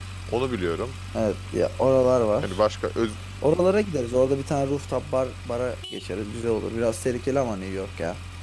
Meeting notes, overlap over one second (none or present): none